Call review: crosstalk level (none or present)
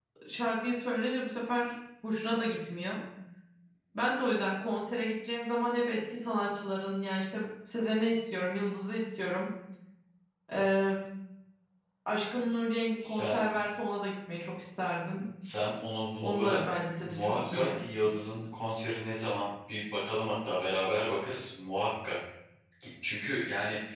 present